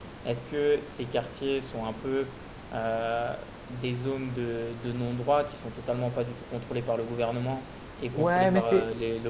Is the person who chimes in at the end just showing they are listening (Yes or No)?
No